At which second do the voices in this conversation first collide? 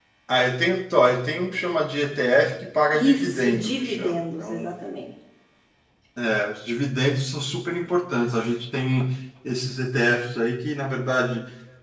3 s

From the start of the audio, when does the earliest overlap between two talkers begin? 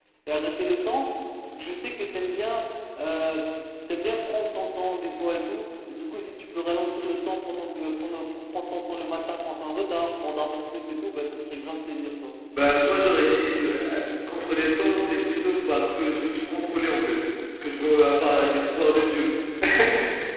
none

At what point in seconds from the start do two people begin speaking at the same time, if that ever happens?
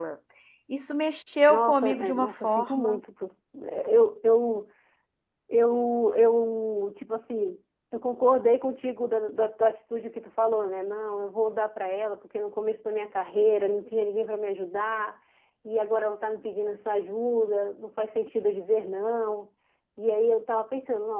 1 s

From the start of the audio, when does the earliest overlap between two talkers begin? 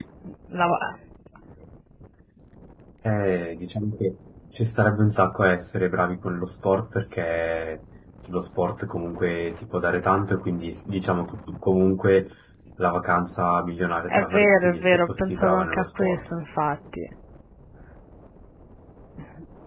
14 s

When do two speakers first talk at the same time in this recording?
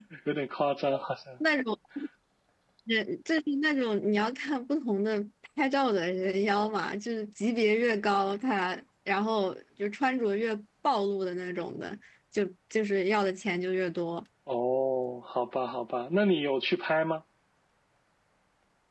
none

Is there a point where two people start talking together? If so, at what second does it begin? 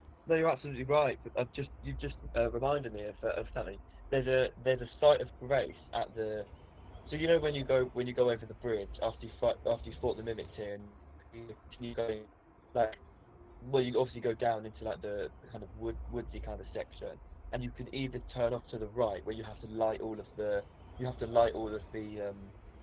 none

